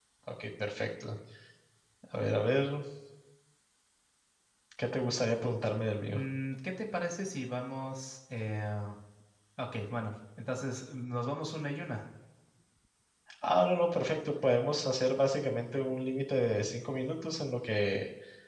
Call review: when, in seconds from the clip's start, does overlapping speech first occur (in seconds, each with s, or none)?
none